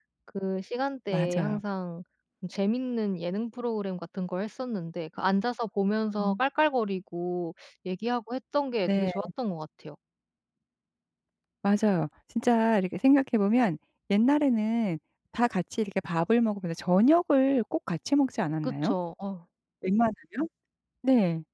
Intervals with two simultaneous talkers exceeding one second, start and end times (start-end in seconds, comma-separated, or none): none